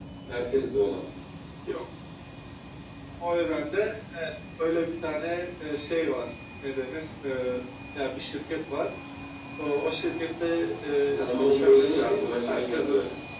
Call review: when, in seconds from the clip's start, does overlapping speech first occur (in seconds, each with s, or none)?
11.1 s